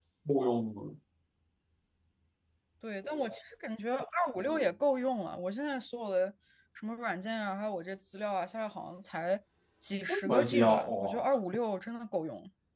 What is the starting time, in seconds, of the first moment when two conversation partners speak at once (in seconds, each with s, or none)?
10.1 s